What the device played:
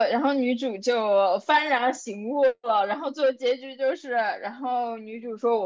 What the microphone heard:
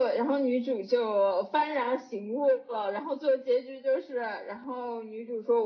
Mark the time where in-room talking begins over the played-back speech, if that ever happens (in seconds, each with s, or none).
none